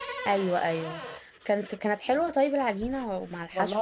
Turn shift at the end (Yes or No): Yes